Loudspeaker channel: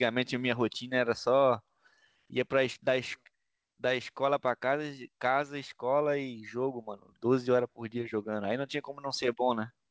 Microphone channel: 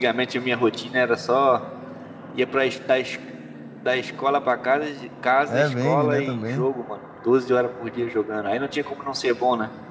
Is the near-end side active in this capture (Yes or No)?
Yes